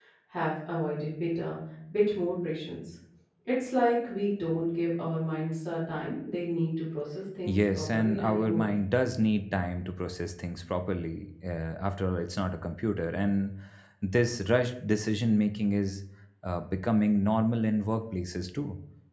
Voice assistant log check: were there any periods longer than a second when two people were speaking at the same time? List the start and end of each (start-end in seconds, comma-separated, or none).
7.5-8.7